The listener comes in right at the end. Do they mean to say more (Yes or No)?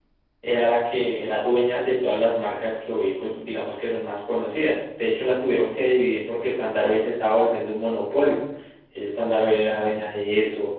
No